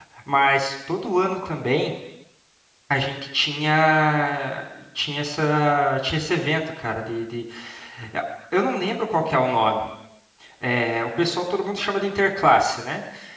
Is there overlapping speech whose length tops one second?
No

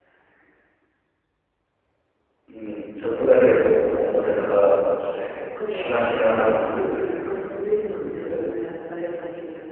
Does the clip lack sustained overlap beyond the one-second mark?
No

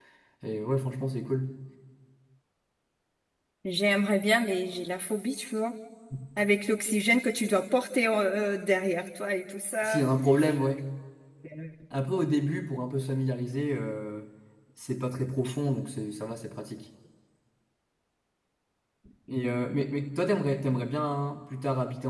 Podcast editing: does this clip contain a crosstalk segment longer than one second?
No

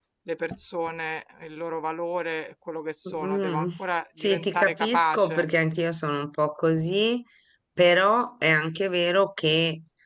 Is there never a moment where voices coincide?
No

